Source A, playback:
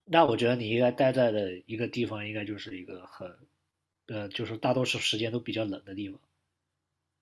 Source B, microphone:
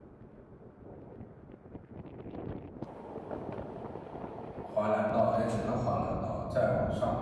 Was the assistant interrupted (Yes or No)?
Yes